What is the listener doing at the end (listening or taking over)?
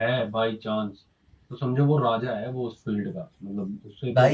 taking over